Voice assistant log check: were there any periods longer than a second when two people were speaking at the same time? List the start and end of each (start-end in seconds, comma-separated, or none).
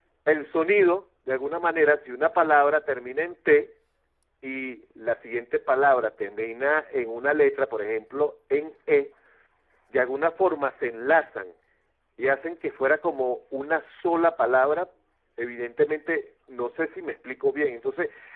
none